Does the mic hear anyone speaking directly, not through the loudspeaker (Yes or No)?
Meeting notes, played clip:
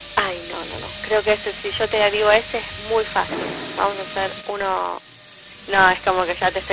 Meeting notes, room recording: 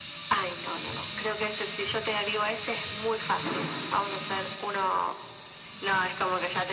No